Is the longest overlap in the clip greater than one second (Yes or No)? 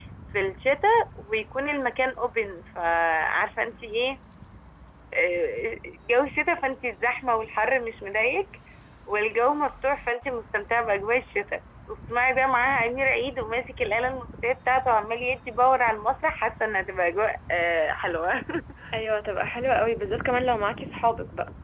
No